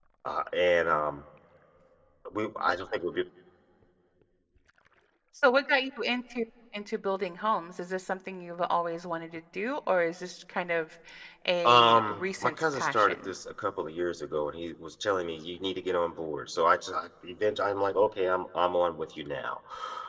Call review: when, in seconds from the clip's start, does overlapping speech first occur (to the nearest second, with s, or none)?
12 s